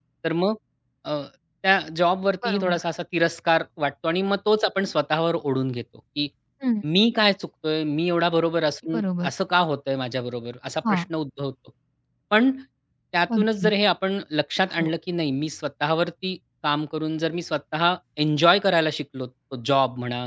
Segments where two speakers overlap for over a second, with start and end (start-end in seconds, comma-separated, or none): none